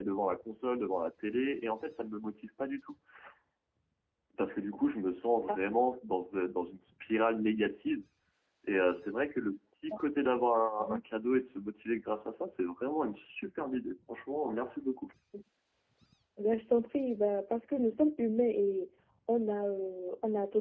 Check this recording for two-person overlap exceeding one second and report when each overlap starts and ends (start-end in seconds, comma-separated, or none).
none